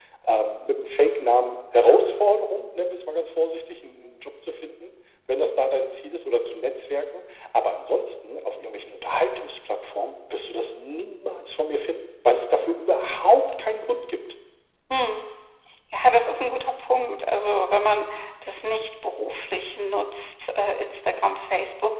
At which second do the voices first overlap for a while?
none

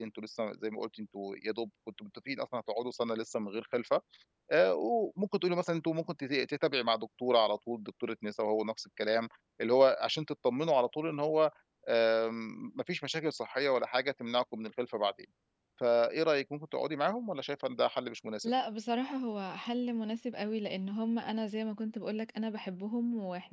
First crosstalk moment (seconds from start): none

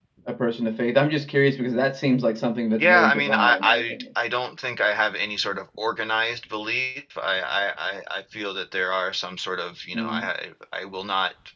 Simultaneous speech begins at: 3 s

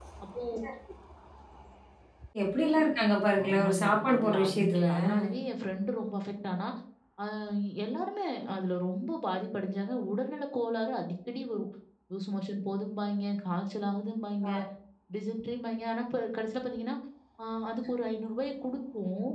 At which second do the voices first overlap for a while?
3 s

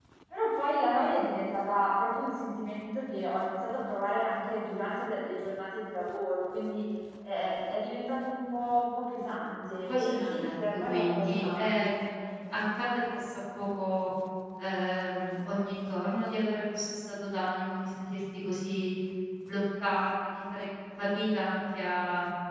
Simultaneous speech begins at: 10 s

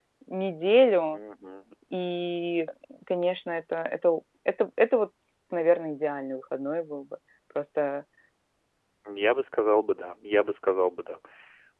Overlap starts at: none

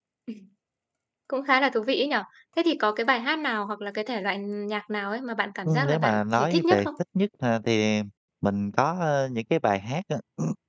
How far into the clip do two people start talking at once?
6 s

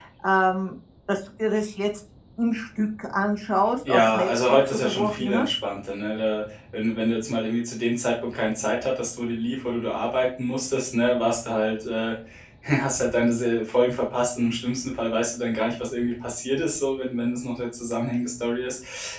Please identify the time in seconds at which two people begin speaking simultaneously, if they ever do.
4 s

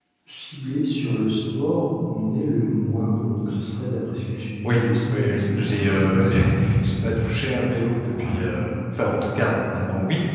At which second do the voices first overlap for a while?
5 s

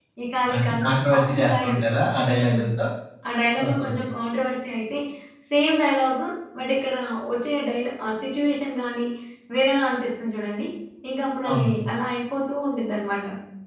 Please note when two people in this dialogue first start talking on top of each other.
1 s

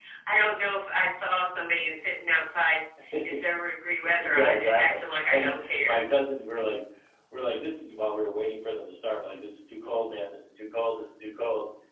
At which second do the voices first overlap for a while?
4 s

